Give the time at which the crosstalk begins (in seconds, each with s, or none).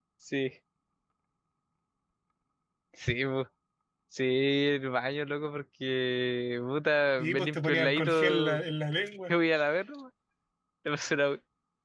7.2 s